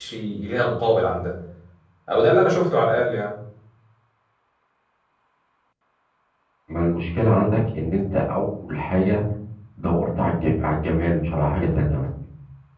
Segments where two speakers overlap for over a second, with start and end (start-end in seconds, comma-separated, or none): none